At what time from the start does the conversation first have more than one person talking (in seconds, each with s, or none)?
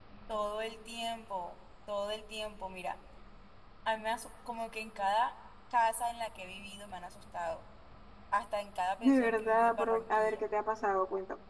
9.0 s